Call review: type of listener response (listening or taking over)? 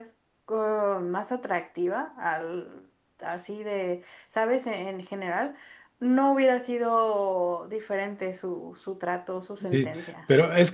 taking over